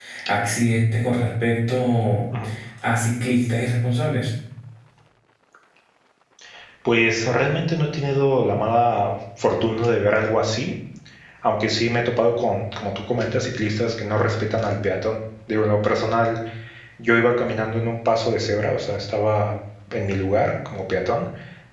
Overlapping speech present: No

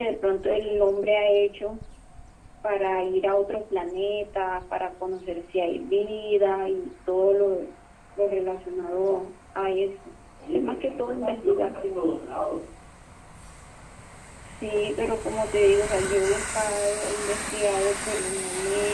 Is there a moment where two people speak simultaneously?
Yes, from 10.5 s

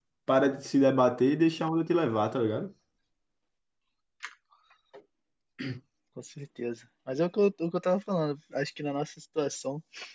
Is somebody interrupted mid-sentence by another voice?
No

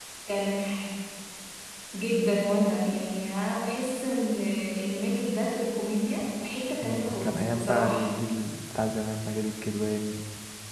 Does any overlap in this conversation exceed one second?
Yes, from 6.8 s

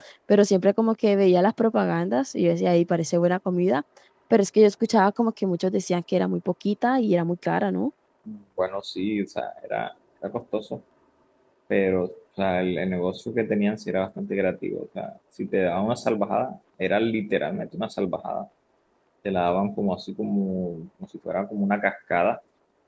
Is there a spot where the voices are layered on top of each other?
No

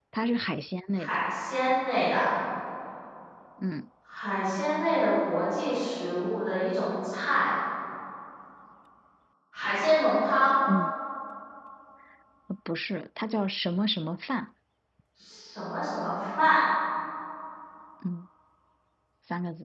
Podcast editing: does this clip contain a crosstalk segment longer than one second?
No

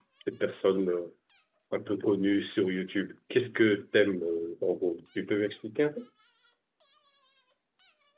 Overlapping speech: No

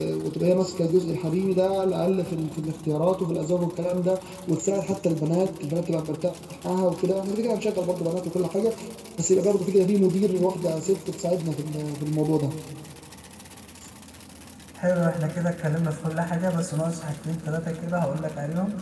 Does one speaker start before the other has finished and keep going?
No

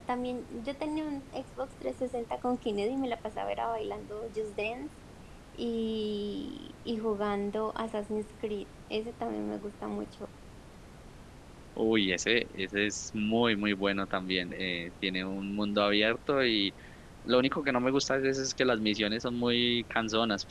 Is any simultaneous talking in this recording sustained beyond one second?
No

